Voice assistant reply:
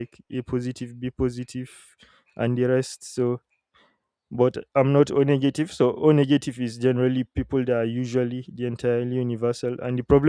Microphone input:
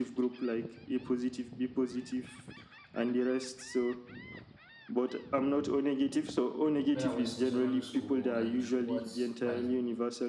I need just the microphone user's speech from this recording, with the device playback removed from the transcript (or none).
when I was in secondary school and what my